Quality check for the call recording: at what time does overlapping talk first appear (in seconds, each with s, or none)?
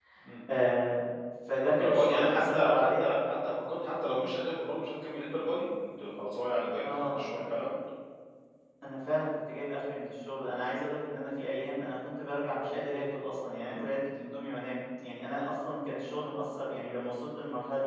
1.8 s